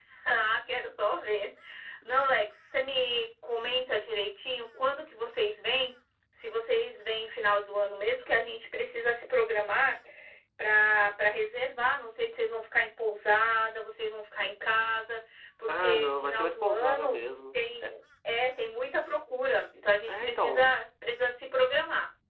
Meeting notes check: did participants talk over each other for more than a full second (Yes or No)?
Yes